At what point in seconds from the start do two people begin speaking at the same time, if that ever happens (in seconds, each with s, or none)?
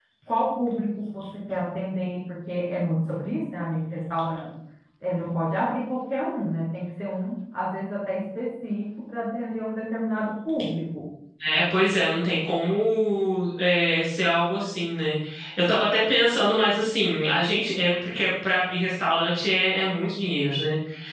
none